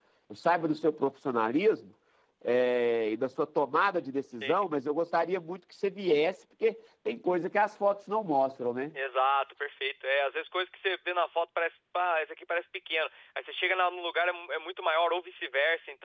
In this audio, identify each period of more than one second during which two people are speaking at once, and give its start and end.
none

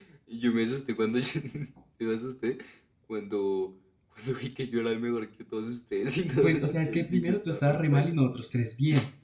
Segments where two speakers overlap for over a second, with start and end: 6.4-8.1

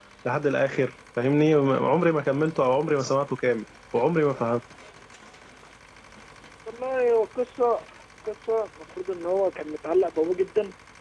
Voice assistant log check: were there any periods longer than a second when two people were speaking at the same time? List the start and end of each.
none

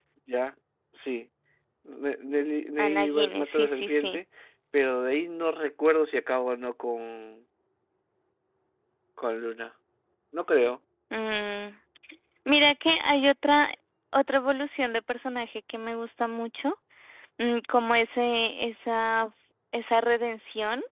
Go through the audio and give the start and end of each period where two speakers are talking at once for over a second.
2.8-4.2

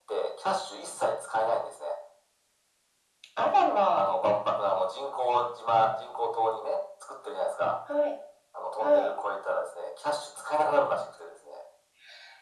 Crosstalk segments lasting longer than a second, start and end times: none

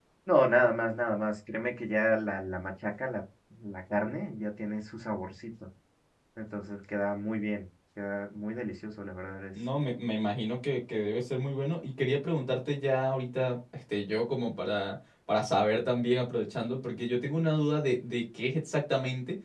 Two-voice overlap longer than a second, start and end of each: none

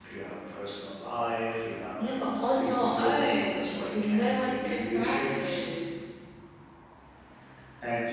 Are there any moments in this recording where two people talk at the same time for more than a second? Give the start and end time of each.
2.0-5.6

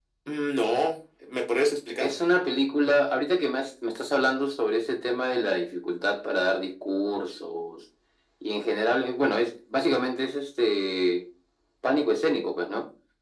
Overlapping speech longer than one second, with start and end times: none

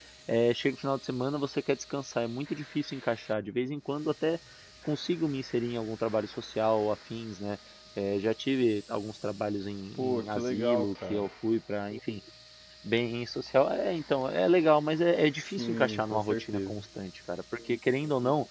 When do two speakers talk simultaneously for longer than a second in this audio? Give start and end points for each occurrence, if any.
9.9-11.3, 15.6-16.8

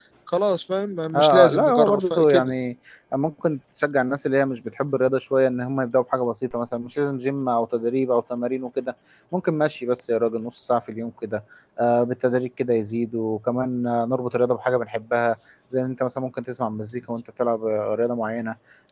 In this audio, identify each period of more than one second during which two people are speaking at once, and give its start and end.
1.1-2.5

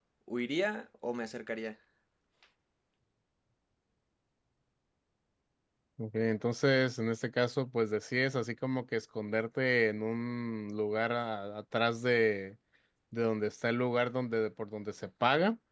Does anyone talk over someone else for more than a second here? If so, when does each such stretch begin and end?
none

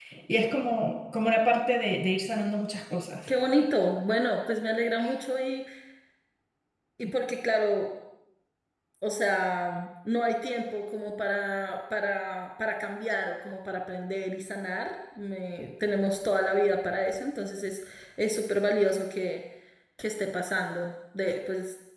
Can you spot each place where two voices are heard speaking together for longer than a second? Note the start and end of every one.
none

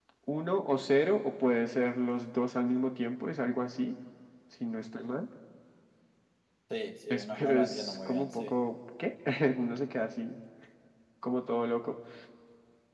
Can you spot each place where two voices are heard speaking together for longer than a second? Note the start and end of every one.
7.1-8.6

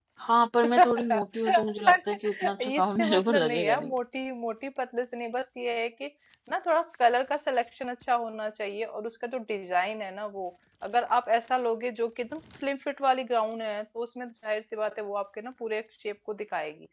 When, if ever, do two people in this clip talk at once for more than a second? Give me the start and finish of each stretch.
0.8-3.9

